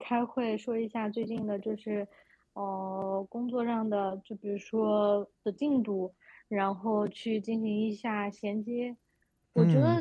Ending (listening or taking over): listening